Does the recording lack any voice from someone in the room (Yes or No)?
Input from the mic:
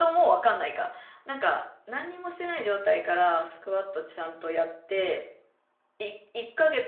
No